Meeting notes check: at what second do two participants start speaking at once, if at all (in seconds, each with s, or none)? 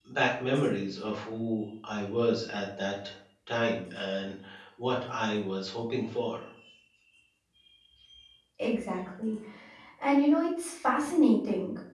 none